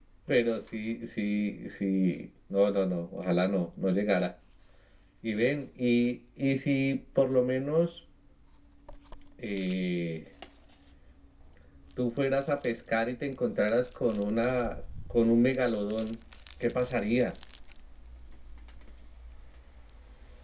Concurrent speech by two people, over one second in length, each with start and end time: none

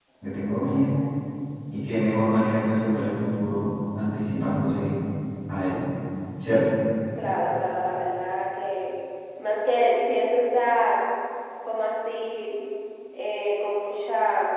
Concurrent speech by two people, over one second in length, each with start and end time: none

